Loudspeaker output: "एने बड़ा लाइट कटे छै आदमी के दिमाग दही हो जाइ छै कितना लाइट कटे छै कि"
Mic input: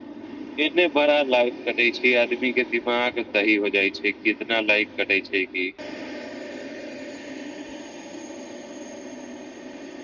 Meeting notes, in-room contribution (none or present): none